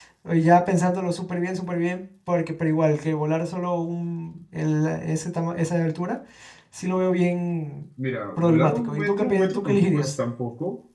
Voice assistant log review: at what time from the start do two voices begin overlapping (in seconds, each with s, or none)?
8.4 s